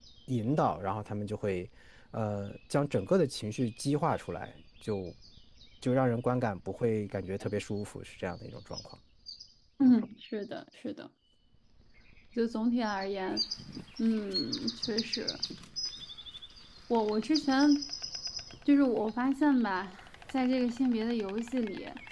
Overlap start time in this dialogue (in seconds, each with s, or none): none